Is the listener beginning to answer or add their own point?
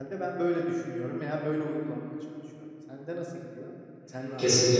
Yes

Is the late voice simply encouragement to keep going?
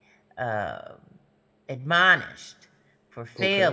No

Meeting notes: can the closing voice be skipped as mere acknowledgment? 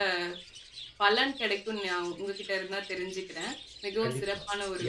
No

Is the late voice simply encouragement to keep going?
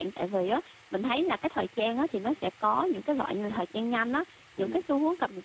Yes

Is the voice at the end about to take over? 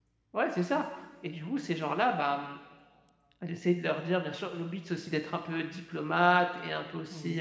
No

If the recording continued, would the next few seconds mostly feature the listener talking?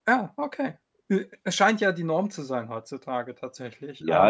Yes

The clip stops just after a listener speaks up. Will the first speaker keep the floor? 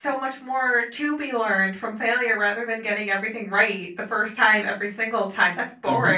No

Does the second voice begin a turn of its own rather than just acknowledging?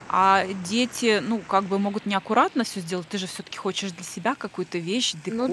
No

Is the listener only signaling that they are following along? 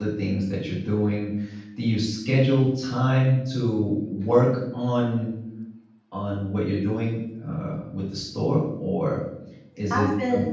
Yes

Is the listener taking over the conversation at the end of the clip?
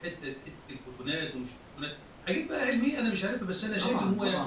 Yes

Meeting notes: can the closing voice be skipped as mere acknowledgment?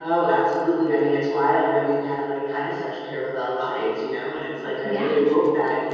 Yes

